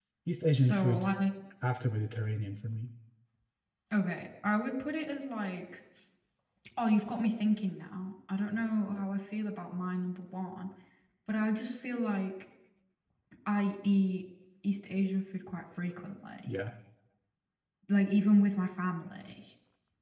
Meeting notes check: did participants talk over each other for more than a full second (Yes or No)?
No